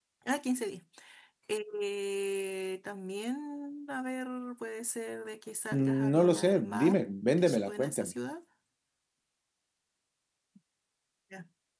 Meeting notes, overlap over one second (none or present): present